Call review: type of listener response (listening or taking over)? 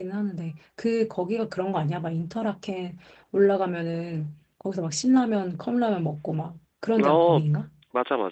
taking over